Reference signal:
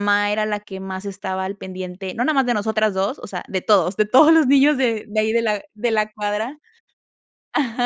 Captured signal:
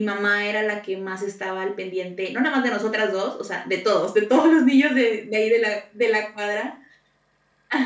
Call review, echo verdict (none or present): present